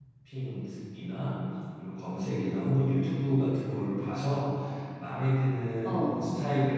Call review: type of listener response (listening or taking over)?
listening